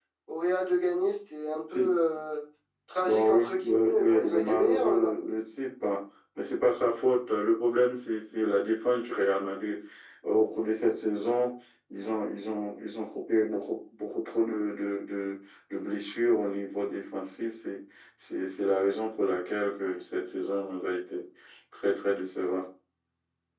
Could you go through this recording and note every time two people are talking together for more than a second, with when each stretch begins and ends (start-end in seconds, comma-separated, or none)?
3.0-5.1